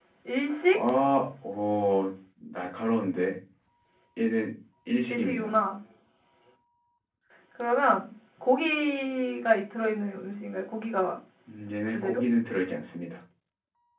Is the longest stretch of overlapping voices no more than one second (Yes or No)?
Yes